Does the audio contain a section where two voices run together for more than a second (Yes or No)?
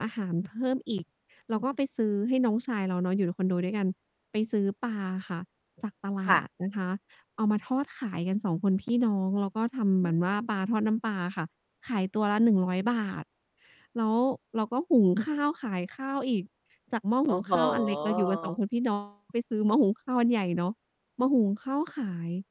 Yes